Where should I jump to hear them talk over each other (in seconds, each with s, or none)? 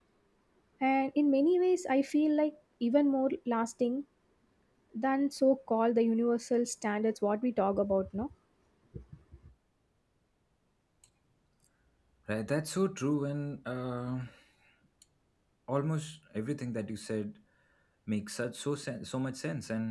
none